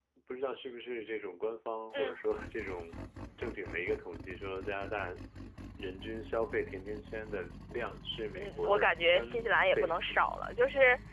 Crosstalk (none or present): present